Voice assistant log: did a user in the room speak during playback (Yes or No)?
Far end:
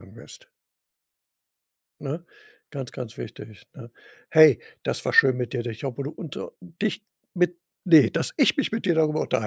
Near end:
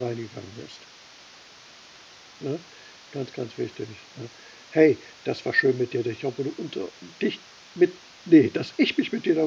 No